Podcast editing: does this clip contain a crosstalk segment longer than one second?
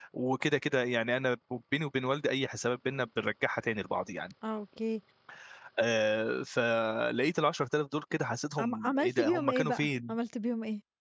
Yes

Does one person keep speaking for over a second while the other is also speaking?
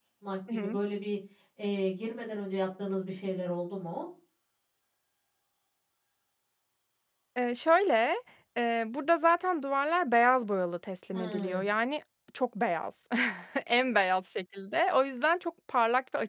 No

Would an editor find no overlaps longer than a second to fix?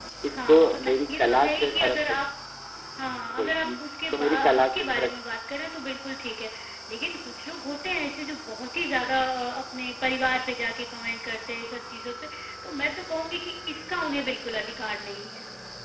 No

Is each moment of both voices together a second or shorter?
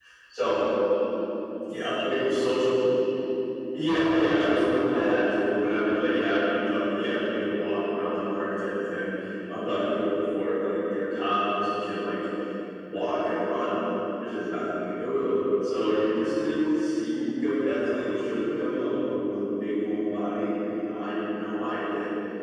No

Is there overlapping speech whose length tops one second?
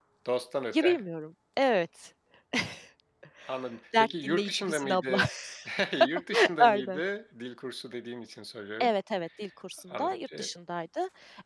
Yes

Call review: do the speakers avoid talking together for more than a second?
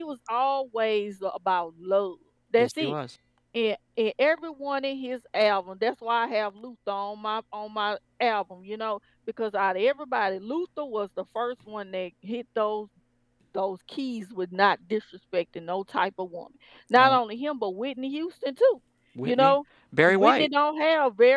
Yes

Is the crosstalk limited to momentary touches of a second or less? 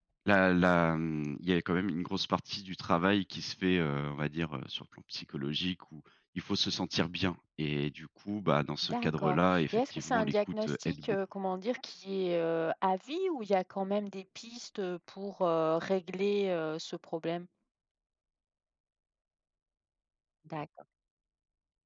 No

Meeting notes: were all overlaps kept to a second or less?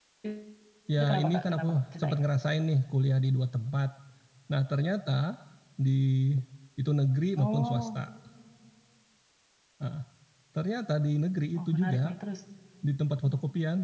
No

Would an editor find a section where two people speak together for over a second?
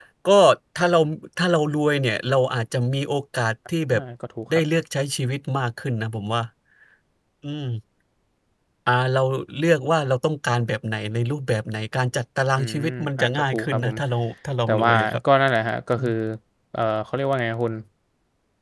Yes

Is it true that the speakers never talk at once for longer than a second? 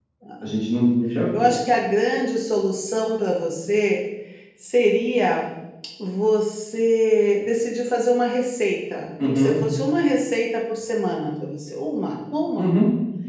Yes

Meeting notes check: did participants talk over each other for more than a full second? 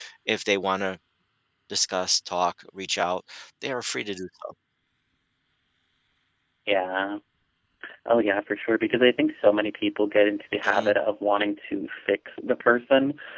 No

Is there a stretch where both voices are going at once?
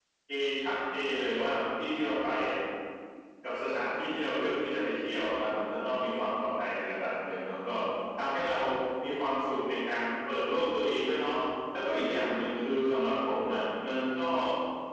No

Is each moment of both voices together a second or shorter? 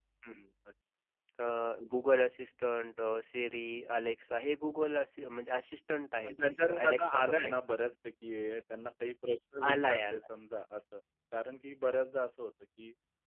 No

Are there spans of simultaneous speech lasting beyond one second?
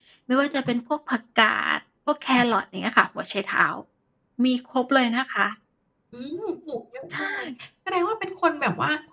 No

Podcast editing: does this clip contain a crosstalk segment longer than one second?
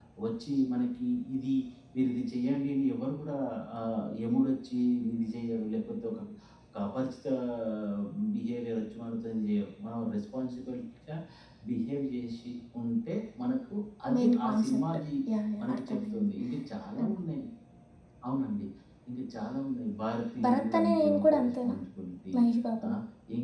Yes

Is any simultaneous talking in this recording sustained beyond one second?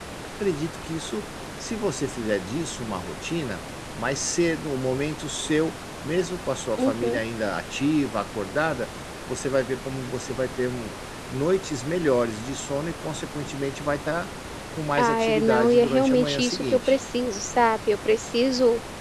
Yes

